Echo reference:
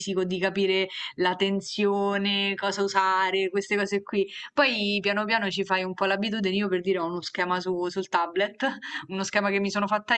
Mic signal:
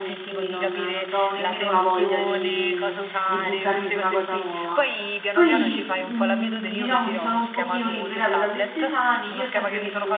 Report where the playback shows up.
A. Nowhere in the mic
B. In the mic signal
B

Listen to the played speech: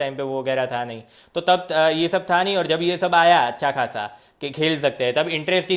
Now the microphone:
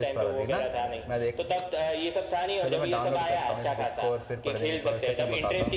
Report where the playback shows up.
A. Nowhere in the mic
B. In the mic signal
B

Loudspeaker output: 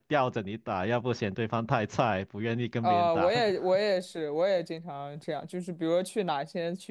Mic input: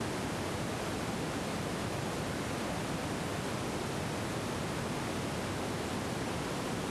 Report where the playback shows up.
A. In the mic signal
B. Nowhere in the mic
B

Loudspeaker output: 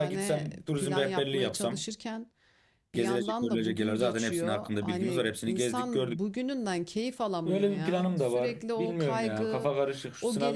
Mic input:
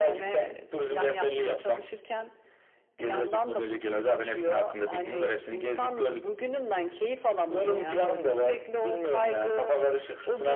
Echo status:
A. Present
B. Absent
A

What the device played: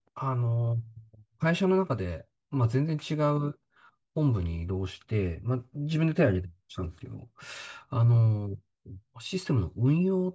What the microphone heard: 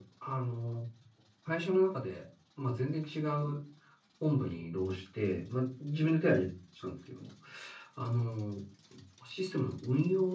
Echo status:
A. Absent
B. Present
B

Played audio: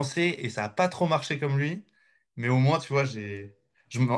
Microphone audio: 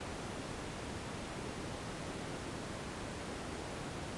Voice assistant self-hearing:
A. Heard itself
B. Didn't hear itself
B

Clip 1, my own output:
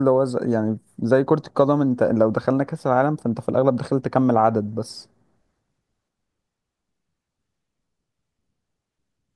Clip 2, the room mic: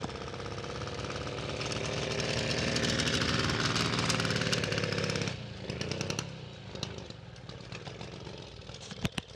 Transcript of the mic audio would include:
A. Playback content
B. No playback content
B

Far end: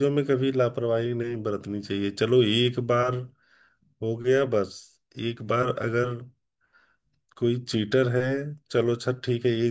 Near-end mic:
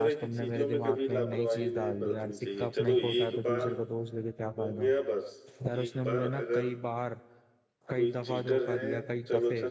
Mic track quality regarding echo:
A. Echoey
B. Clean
A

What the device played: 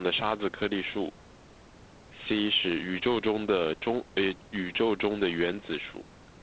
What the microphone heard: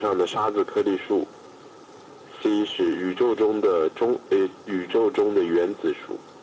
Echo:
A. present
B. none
A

